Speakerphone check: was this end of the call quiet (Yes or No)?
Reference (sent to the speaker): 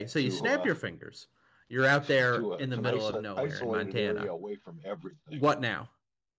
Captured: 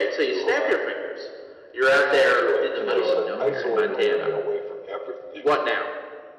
No